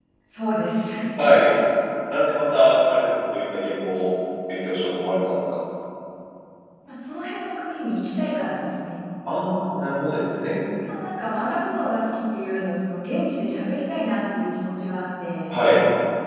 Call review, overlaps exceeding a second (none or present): none